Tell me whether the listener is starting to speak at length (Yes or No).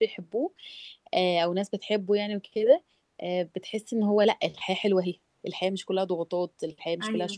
Yes